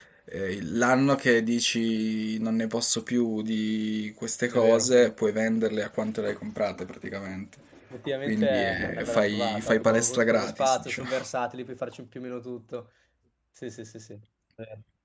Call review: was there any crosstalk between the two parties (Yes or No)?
Yes